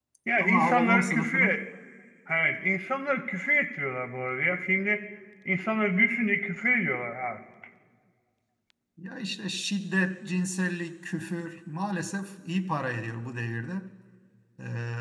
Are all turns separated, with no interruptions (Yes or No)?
No